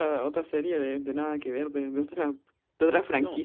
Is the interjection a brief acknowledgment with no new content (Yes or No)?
No